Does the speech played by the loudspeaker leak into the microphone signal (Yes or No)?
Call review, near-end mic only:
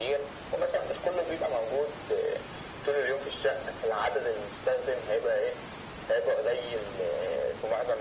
Yes